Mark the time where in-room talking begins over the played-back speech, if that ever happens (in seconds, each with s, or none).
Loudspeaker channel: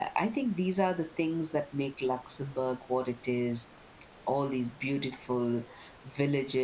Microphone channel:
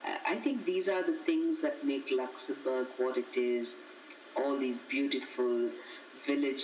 none